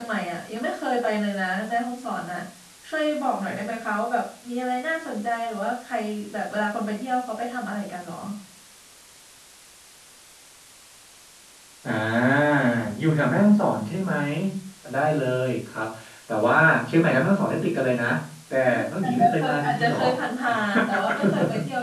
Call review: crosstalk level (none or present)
present